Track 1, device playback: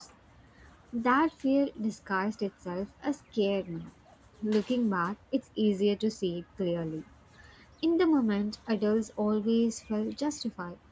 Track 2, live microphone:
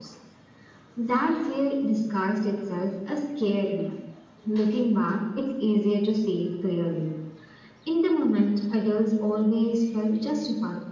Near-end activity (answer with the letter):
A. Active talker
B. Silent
B